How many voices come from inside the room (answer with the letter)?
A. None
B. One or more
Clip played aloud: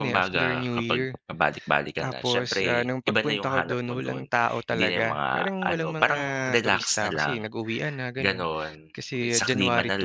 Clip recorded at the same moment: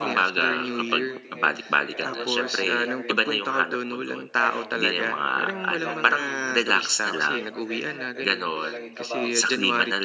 B